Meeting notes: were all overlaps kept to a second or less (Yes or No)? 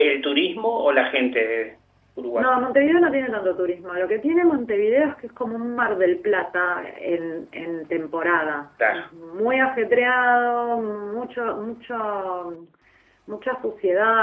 Yes